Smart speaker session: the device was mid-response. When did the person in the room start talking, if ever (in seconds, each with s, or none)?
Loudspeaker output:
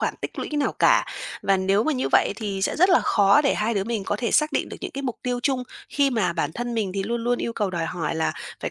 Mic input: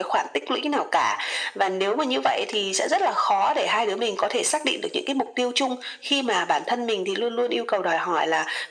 none